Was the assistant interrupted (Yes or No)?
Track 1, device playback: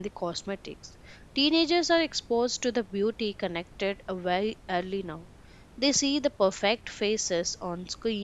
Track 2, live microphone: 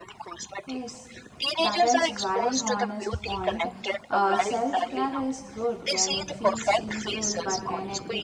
Yes